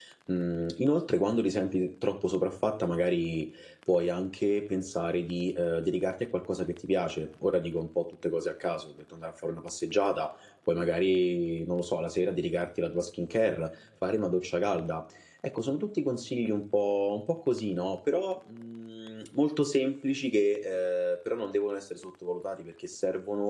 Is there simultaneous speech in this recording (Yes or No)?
No